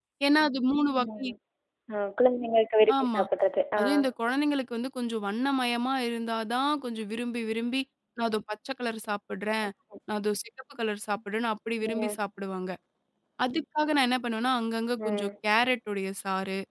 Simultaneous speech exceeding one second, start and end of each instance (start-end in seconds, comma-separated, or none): none